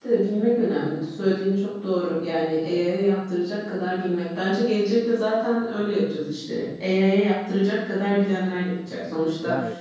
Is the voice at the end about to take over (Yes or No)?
No